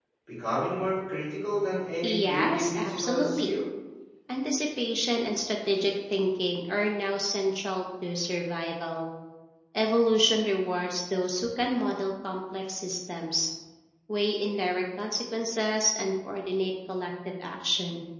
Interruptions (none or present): present